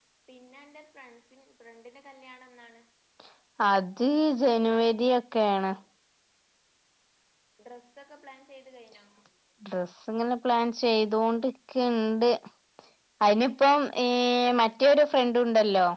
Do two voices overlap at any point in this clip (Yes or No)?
No